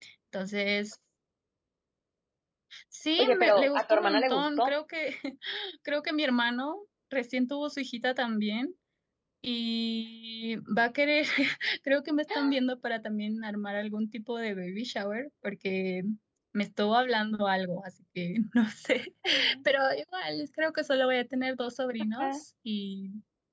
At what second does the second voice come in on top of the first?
3.2 s

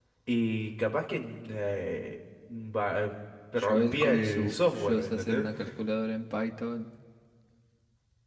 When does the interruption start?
3.6 s

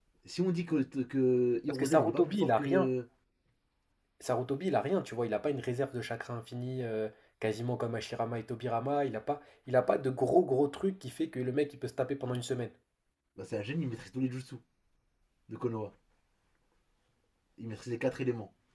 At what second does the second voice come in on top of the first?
1.7 s

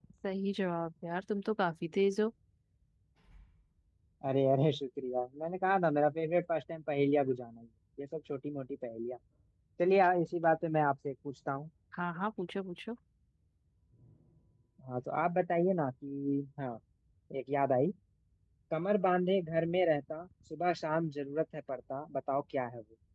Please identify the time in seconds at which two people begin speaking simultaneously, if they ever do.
none

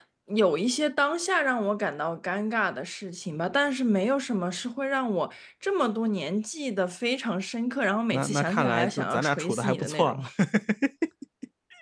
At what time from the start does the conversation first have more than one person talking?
8.1 s

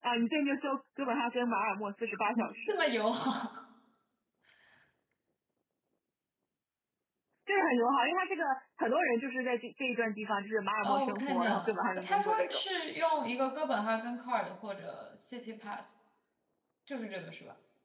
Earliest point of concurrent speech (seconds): 10.8 s

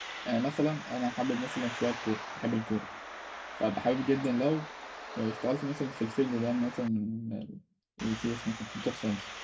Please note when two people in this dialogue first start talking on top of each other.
none

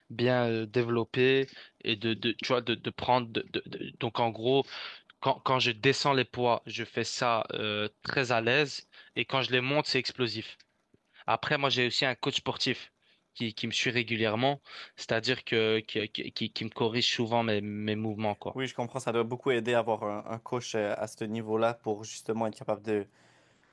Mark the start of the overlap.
none

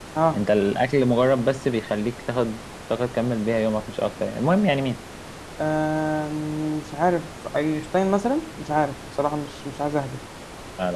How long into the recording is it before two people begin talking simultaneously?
none

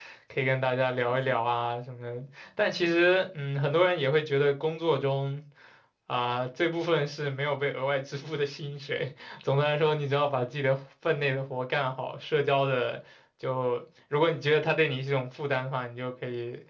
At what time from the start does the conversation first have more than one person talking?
none

